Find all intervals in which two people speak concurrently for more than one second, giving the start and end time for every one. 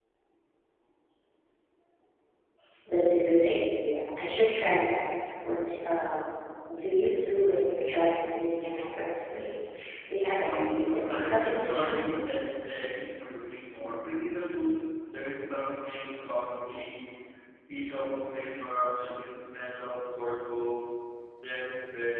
10.4-12.2

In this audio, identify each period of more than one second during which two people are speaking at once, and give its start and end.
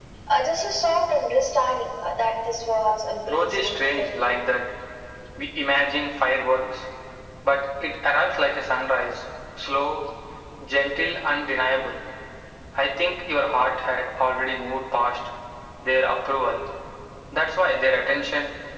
3.2-4.5

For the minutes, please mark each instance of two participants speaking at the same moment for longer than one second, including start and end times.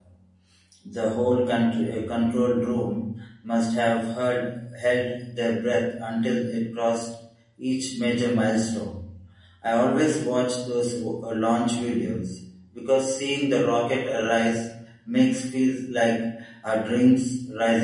none

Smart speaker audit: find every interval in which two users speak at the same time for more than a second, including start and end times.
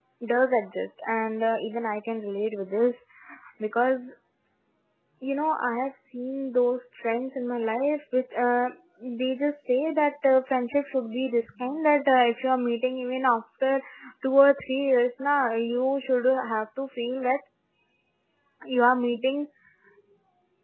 none

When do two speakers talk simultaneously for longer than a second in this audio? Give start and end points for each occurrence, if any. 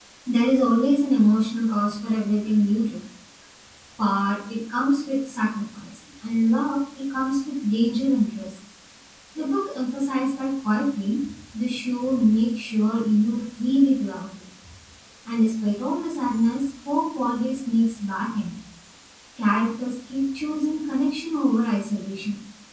none

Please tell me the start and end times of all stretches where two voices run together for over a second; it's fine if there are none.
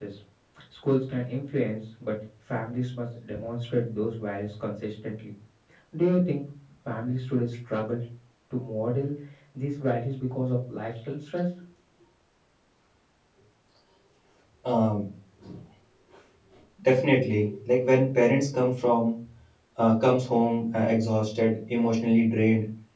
none

